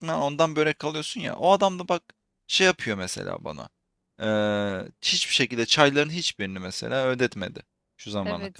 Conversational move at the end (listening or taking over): taking over